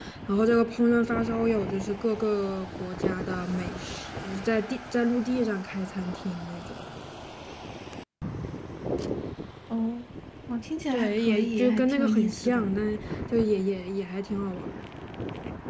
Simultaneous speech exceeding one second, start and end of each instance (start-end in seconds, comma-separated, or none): 10.9-12.7